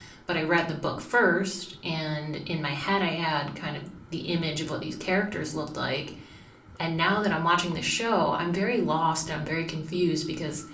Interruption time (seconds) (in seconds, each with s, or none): none